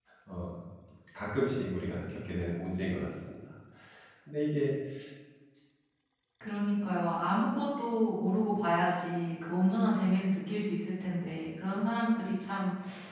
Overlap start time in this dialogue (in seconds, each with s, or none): none